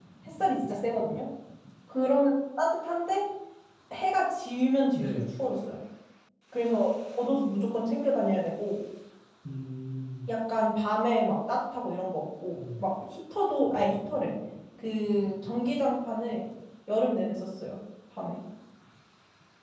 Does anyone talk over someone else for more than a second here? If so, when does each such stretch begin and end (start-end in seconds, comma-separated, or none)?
none